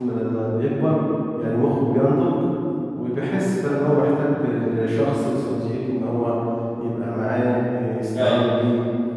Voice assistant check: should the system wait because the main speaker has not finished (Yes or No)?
Yes